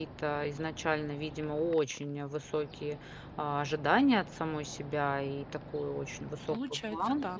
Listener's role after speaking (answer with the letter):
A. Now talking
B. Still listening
B